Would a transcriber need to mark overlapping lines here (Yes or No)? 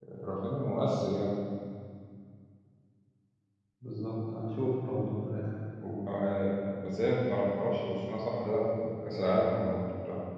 No